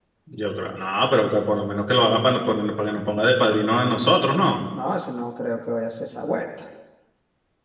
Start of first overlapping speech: none

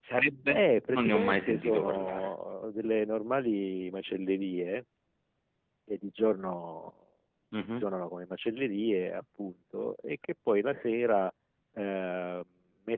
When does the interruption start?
0.5 s

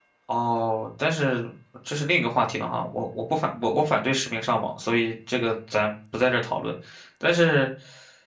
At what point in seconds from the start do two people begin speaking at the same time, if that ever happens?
none

